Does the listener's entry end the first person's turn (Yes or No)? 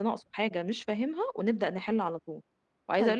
No